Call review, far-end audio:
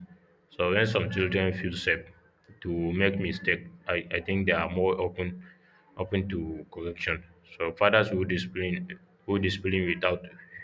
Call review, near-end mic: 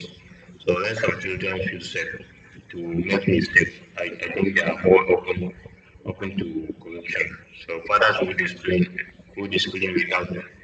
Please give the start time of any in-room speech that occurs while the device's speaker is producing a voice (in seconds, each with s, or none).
none